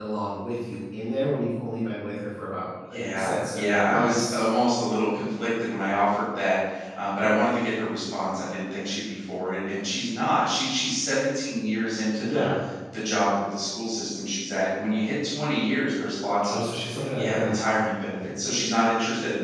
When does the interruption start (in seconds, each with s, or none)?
2.9 s